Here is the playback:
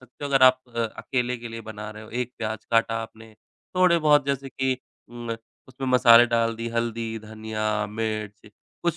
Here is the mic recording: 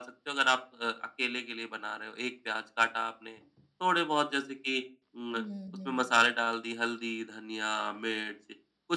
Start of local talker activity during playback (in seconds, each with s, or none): 5.3 s